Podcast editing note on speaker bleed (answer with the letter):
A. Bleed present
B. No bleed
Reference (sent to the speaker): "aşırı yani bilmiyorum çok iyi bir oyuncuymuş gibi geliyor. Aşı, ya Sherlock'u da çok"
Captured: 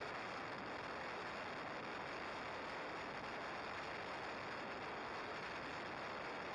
B